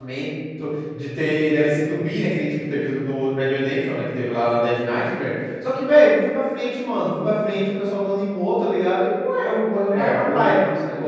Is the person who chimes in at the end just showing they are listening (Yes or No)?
No